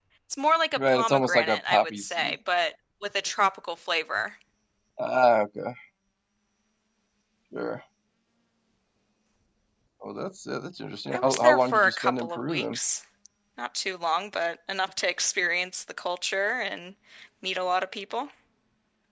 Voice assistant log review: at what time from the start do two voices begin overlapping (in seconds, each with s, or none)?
0.8 s